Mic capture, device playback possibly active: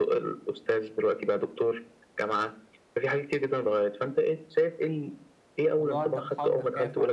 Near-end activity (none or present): present